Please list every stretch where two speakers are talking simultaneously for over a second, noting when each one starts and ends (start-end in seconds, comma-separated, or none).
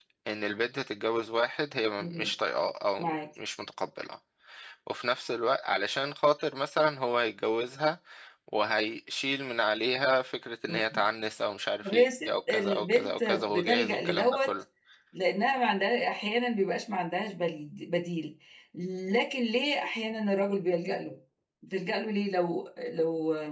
11.8-14.6